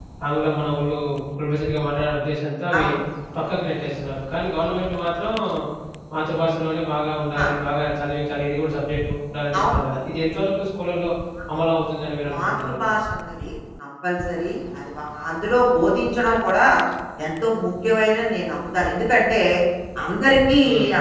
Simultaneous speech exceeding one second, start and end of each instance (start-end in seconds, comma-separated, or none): none